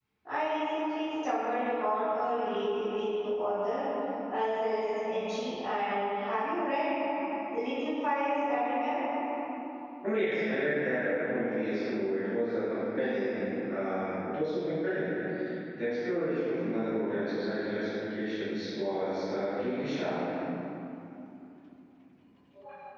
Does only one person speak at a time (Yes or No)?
Yes